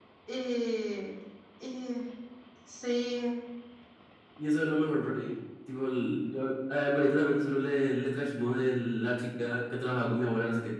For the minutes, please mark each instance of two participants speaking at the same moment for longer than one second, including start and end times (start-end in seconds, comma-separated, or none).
none